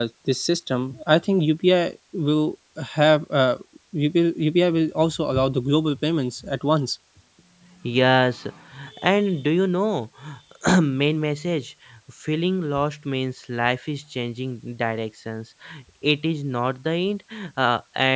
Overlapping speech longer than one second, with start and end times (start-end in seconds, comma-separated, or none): none